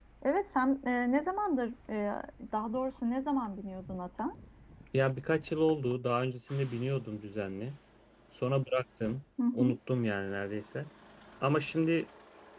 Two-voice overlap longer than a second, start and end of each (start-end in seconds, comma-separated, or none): none